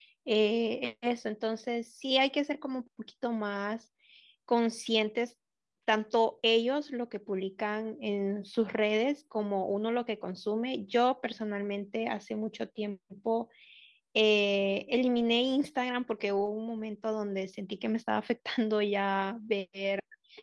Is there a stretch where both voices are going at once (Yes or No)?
No